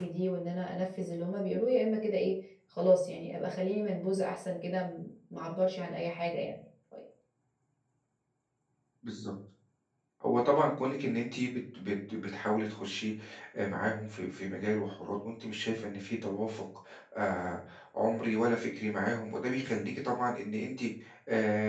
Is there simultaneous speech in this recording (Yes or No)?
No